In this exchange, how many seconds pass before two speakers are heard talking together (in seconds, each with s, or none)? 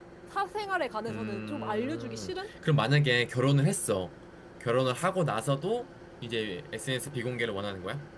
1.1 s